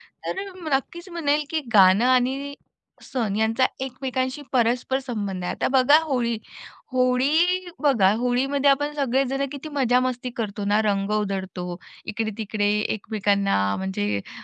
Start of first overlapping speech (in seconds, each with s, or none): none